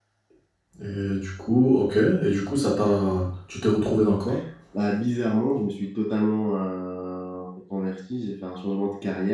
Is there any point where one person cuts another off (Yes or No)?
No